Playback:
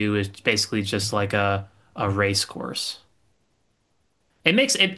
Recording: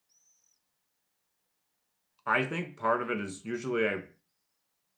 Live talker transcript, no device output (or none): I think part of it is usually I